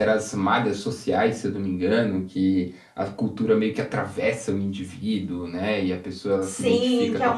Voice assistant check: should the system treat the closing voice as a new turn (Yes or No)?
Yes